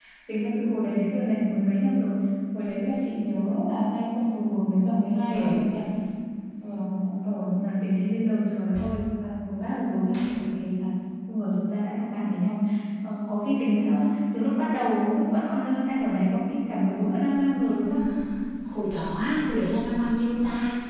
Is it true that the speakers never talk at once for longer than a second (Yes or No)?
Yes